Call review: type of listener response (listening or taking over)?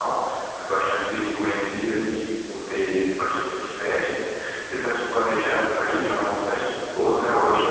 taking over